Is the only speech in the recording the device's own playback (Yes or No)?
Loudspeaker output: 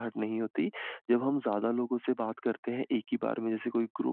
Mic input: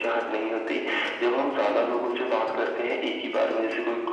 Yes